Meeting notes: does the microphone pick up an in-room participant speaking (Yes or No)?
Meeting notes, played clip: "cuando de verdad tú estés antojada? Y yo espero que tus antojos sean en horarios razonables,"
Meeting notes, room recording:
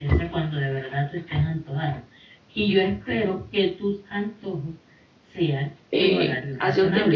Yes